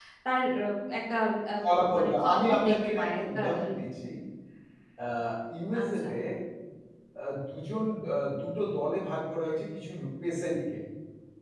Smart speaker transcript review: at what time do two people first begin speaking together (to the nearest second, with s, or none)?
2 s